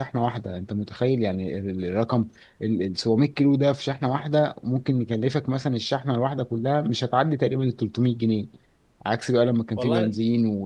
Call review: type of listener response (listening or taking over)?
listening